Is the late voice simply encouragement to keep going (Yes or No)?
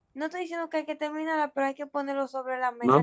No